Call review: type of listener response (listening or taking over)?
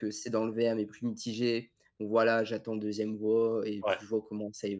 listening